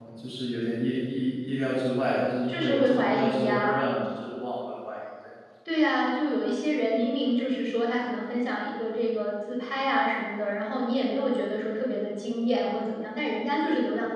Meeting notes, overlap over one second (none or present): present